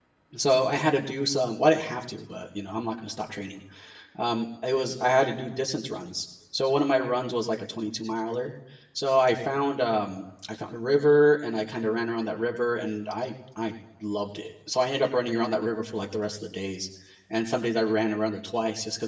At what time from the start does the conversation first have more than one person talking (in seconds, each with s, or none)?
none